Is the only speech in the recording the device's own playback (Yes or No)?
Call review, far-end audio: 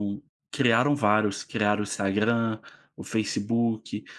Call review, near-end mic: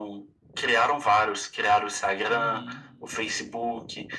No